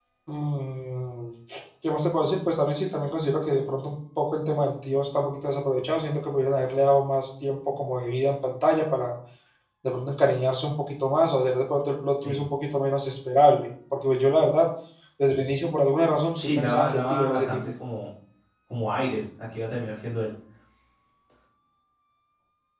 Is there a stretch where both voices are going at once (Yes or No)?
Yes